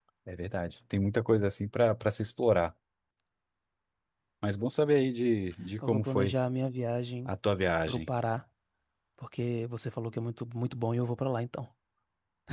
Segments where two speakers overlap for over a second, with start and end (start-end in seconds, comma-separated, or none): none